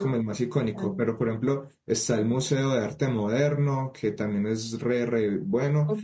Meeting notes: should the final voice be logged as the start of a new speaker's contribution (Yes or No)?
No